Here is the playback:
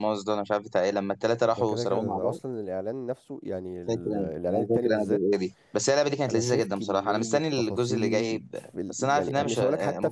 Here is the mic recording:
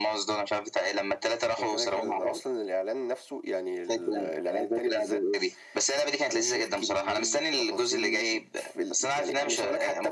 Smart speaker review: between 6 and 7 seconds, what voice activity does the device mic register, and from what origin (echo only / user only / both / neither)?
echo only